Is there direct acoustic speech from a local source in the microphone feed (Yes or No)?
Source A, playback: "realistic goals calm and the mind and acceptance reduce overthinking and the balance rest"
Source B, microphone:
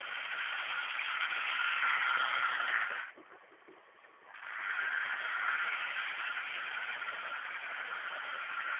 No